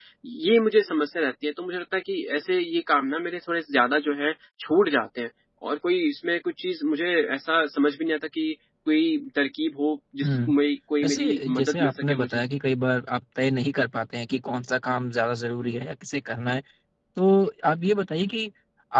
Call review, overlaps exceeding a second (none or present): present